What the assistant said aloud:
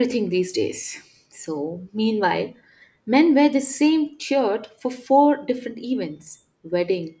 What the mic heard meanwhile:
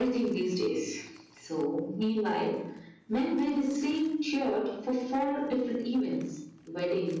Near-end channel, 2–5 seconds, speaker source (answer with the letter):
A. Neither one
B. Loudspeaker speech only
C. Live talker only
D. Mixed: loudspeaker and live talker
B